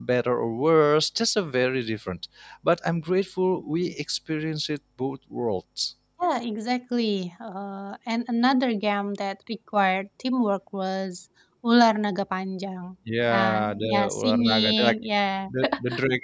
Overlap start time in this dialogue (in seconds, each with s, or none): 13.3 s